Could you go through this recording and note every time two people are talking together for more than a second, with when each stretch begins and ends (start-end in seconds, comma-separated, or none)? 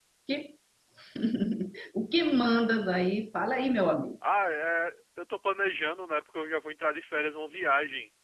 none